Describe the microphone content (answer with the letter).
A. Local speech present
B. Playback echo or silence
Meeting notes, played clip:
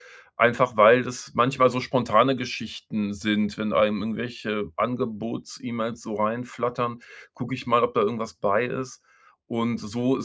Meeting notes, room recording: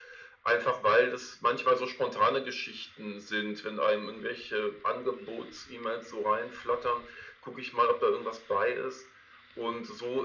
B